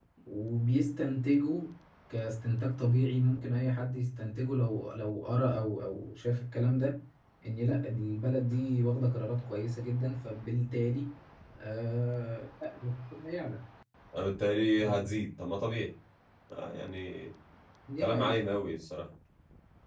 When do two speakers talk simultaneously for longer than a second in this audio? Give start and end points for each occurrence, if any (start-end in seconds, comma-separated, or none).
none